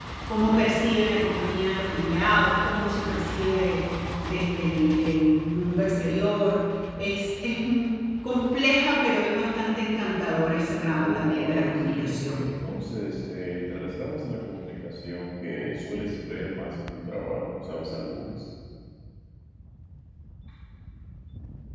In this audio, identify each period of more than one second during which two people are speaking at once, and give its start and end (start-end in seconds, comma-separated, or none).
11.0-12.5